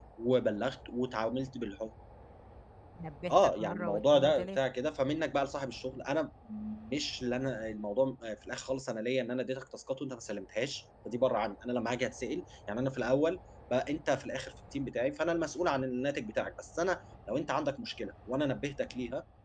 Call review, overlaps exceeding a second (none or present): present